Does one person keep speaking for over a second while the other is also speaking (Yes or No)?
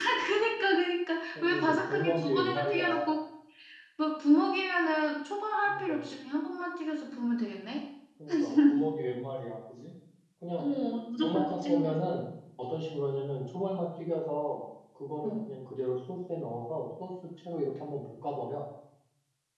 Yes